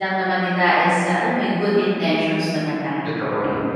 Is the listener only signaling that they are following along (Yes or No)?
No